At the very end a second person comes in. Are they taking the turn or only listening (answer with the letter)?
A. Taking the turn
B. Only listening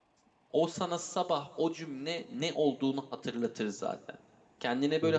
B